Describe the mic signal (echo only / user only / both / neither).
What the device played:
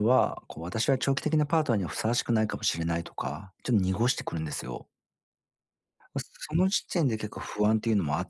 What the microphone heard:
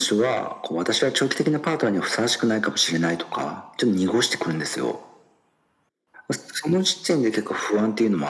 echo only